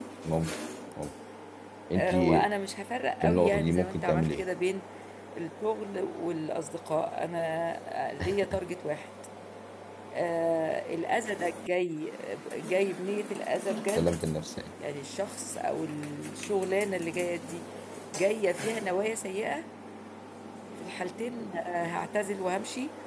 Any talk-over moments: Yes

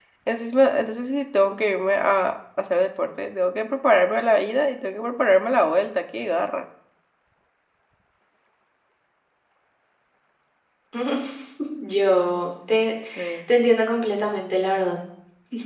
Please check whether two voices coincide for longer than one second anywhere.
No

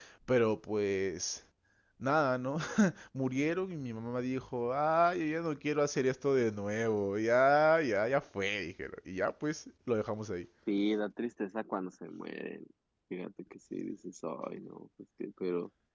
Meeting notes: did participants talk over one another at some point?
No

